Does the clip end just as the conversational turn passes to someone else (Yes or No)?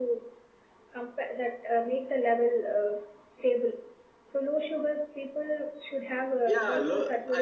Yes